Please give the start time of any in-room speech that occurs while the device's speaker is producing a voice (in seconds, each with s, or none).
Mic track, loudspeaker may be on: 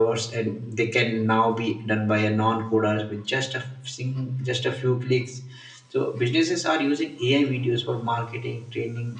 none